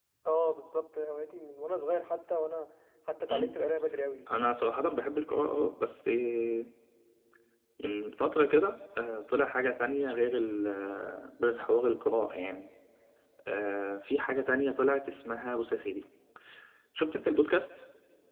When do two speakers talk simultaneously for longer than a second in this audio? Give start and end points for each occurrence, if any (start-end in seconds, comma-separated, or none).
none